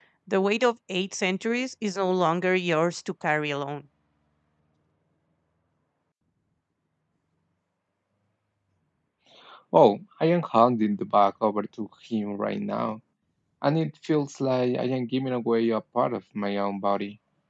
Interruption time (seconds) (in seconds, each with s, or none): none